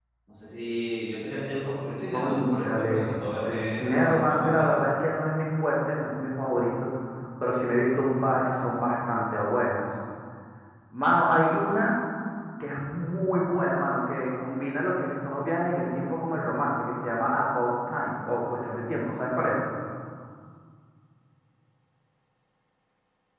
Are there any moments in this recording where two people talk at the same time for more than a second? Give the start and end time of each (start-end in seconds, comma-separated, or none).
2.1-4.6